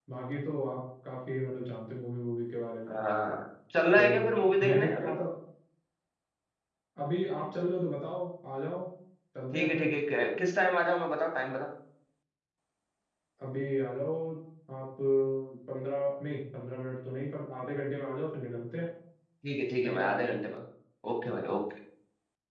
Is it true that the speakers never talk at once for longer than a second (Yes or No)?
No